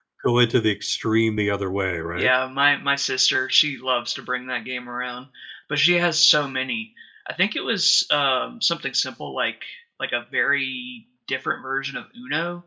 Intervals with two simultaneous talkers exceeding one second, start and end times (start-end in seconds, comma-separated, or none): none